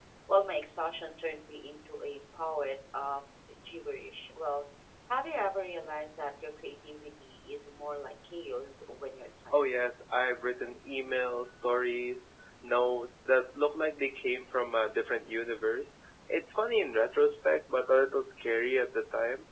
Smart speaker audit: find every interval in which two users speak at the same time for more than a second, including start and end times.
none

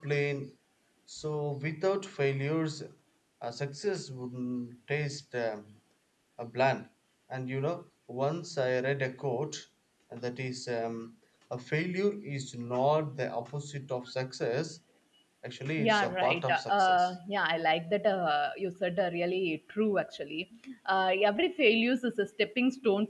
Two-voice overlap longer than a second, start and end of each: 15.8-17.1

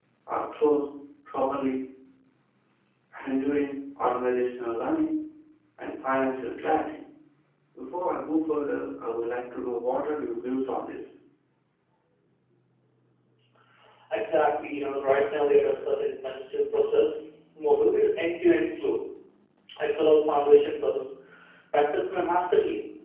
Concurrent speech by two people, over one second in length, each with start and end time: none

